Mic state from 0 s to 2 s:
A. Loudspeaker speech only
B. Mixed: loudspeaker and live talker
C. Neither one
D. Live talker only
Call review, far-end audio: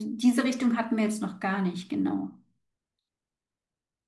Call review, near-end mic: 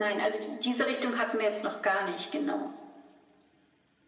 A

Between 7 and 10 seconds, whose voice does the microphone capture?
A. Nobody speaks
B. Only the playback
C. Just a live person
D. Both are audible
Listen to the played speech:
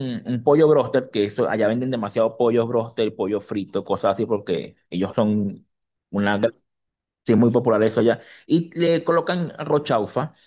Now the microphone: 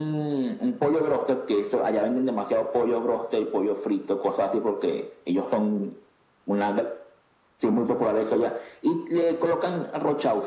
B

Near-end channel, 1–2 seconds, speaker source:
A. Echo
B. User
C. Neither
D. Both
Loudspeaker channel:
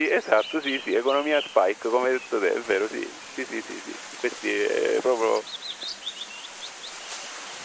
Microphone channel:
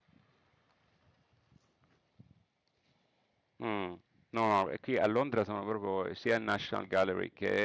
C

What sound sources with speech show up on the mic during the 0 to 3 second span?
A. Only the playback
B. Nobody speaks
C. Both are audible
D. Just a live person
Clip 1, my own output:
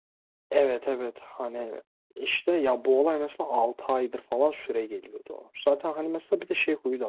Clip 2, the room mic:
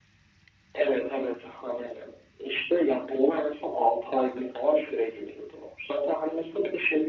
A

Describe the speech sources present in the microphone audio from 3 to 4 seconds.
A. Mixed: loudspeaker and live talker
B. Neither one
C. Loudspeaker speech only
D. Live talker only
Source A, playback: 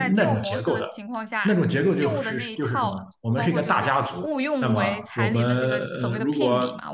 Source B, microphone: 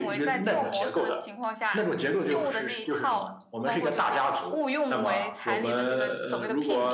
C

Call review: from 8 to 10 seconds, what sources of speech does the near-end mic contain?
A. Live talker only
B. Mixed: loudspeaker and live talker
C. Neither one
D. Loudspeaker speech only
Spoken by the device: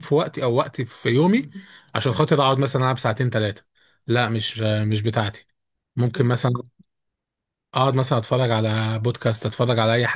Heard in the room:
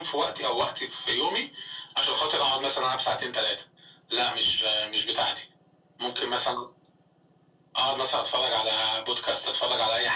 D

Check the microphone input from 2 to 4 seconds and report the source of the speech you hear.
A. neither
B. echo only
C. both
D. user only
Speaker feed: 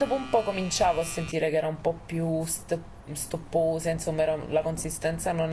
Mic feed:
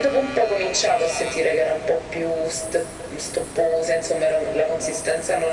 B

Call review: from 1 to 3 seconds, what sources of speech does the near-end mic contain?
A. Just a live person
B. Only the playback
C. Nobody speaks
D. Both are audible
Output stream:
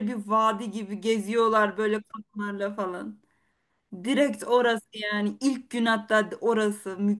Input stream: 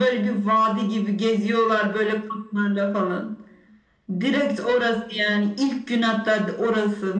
B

